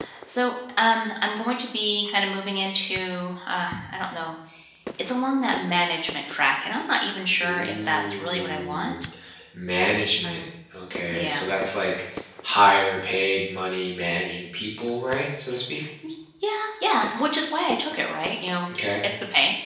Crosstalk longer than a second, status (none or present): present